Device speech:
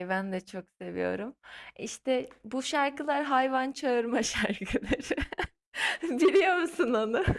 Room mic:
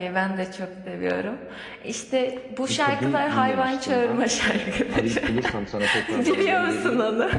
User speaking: Yes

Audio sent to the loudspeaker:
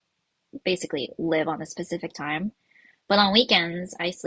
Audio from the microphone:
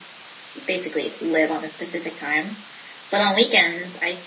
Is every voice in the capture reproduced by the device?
Yes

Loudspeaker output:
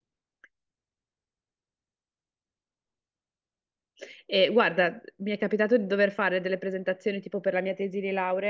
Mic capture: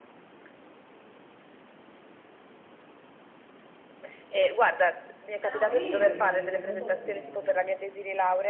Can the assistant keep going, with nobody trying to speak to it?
No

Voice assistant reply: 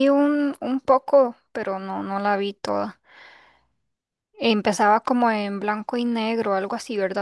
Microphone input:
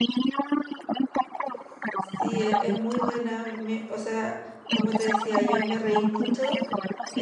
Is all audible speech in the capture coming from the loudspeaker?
No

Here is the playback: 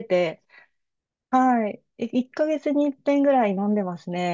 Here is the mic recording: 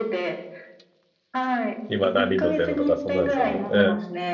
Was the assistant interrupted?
Yes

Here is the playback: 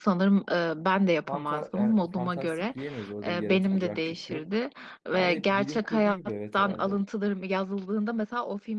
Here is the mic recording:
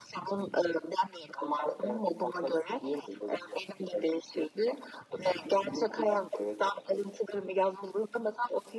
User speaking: No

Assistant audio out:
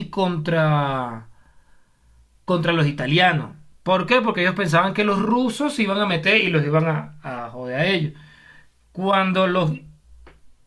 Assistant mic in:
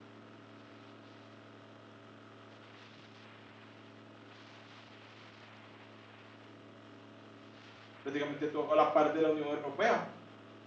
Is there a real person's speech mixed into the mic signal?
Yes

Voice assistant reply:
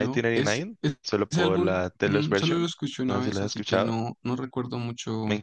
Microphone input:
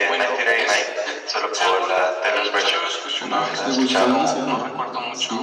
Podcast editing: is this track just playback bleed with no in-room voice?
No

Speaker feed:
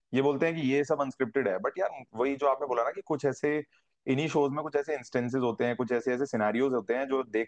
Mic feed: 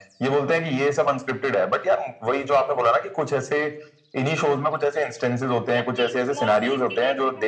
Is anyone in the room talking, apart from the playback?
Yes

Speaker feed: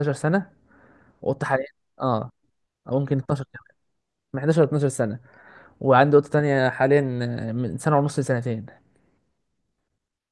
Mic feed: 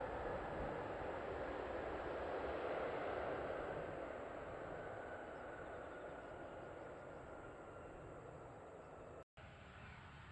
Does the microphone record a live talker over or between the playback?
No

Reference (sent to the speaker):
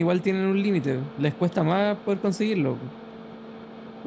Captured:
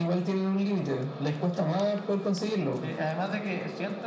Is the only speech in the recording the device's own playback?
No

